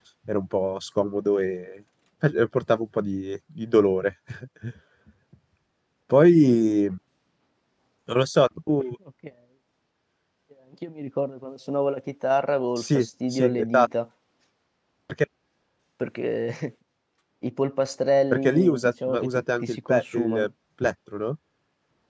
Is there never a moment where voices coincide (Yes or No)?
No